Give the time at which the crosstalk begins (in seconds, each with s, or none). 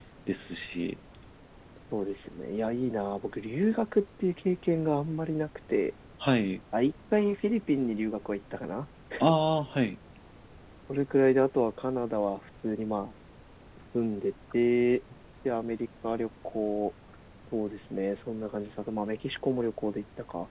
none